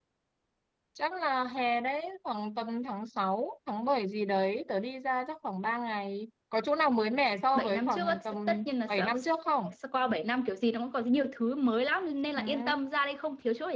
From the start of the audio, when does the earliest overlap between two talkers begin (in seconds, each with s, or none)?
7.5 s